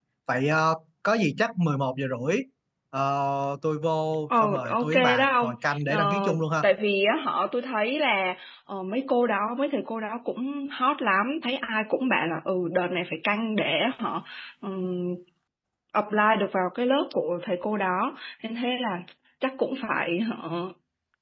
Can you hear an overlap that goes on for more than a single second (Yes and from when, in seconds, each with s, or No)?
Yes, from 4.3 s